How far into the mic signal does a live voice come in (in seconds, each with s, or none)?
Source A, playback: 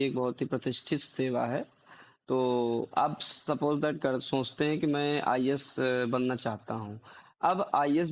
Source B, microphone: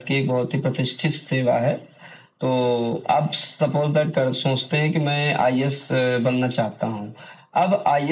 none